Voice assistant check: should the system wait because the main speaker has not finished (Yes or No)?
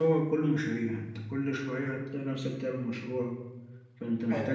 Yes